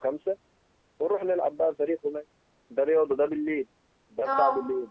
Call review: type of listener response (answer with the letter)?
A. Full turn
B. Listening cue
B